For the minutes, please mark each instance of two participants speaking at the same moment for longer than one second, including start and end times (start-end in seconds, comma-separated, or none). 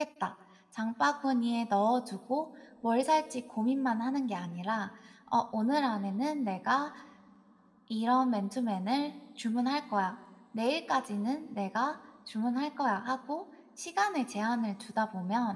none